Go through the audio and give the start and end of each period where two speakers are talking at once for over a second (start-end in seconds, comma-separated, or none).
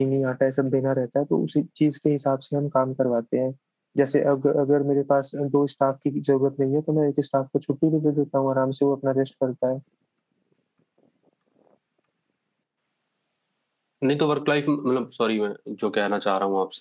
none